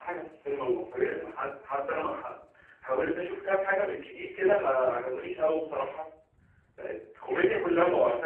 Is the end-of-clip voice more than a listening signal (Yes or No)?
No